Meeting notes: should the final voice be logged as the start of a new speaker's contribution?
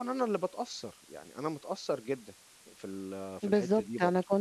Yes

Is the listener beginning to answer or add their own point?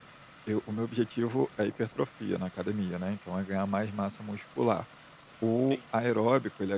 No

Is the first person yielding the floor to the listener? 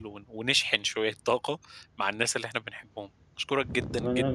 Yes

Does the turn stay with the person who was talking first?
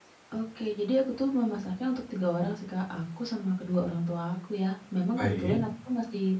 Yes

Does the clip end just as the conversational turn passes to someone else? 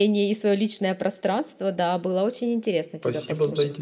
Yes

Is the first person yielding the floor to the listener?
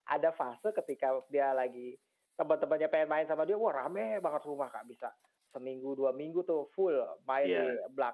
No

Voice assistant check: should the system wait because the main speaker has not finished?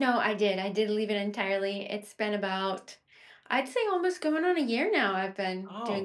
No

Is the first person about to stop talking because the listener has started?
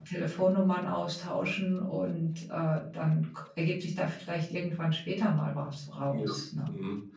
Yes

